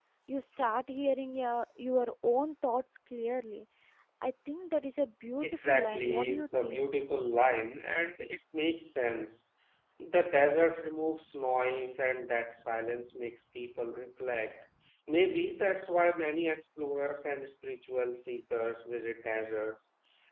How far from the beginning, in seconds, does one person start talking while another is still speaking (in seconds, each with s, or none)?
5.4 s